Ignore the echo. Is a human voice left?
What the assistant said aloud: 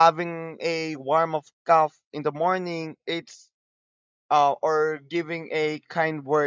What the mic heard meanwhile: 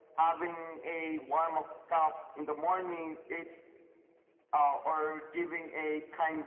No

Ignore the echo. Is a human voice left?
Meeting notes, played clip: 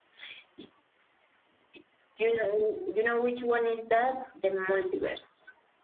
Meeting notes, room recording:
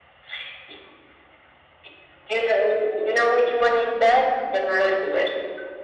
No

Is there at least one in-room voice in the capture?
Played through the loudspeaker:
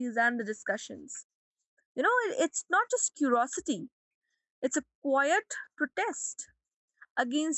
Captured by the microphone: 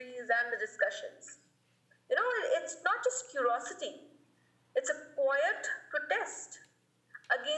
No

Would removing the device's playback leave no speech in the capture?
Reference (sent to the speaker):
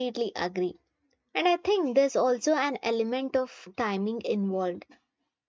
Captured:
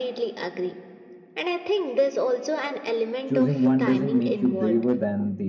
No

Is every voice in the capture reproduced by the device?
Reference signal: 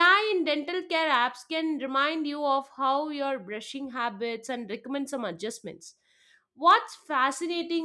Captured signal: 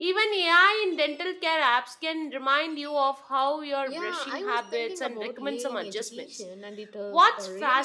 No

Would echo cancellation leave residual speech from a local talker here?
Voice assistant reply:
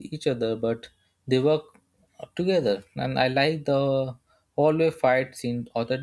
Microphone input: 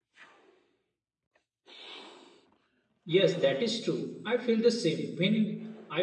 Yes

